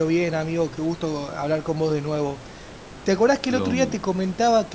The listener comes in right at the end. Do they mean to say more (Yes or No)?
No